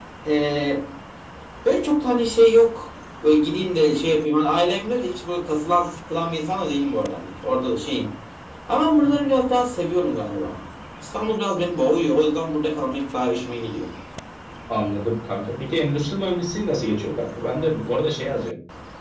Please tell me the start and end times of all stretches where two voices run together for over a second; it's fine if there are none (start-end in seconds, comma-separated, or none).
none